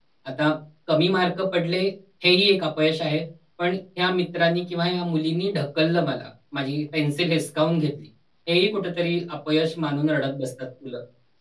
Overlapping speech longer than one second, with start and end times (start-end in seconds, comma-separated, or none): none